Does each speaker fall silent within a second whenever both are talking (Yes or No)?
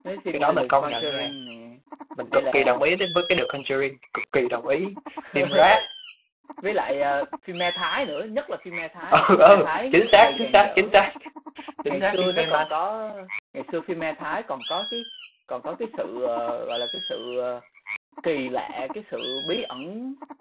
No